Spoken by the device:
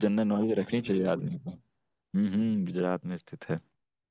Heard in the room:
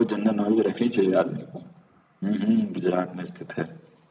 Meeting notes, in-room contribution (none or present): none